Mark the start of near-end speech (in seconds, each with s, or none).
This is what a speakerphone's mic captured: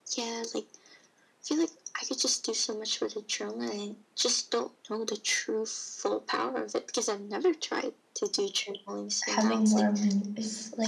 9.2 s